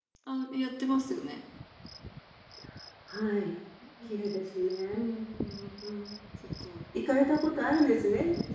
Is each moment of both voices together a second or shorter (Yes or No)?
Yes